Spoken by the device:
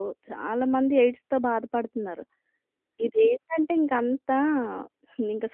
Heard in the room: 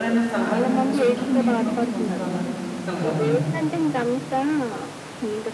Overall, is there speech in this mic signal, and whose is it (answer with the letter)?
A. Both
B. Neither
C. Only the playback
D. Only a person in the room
A